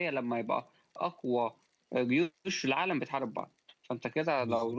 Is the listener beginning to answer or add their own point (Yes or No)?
No